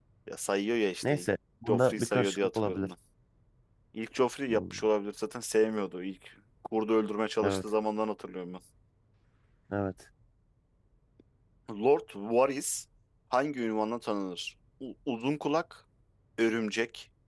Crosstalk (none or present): present